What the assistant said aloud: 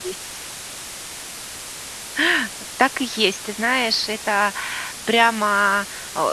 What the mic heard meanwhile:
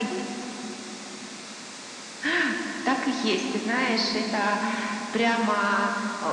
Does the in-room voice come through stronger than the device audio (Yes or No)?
No